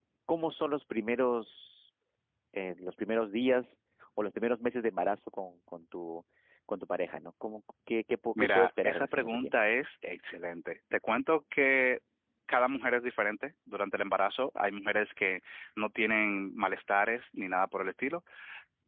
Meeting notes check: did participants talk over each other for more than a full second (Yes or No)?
Yes